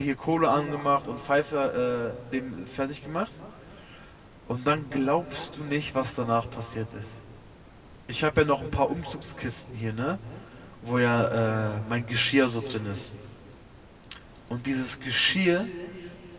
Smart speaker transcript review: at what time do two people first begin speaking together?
none

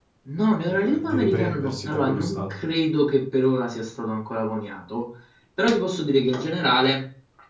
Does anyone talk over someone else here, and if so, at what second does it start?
0.7 s

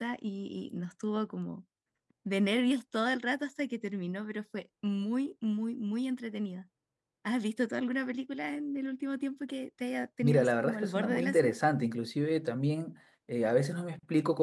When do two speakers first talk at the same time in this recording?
10.2 s

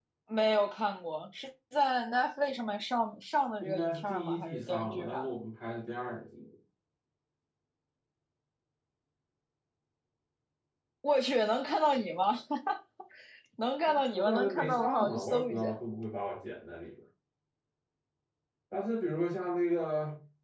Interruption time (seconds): 3.6 s

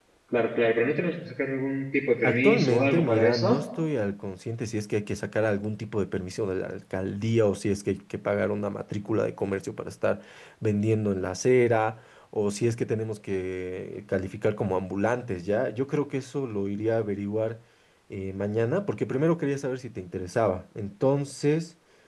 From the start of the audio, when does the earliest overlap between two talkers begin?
2.2 s

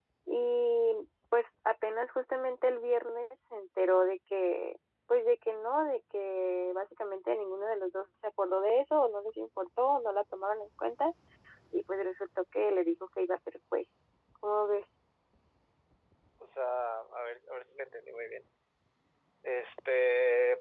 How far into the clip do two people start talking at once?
none

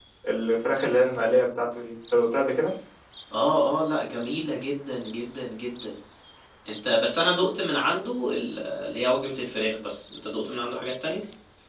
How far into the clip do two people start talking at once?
none

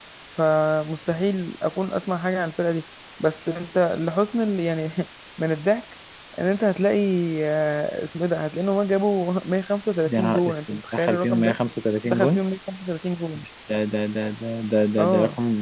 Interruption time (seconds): 10.1 s

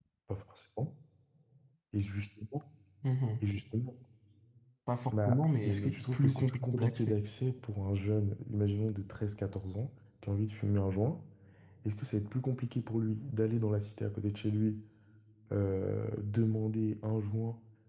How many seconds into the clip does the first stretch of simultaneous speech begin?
5.3 s

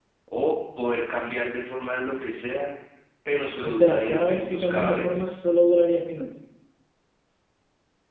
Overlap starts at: 3.6 s

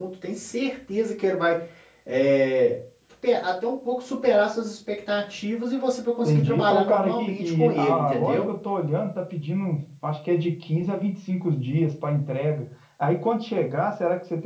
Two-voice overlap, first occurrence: 6.2 s

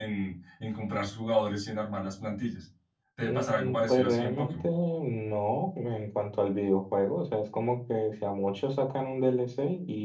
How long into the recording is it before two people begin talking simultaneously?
3.2 s

